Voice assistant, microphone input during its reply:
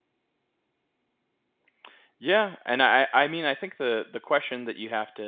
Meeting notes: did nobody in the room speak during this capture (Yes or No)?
No